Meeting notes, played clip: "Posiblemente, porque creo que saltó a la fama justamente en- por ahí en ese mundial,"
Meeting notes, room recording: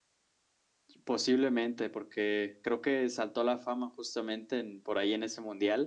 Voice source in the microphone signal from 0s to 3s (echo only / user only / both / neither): echo only